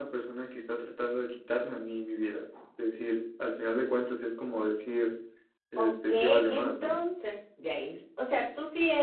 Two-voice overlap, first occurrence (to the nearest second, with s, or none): 6 s